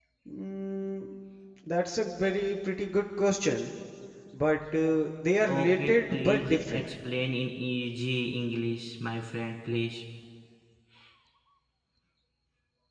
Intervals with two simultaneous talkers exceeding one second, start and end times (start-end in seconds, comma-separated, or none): 5.5-6.8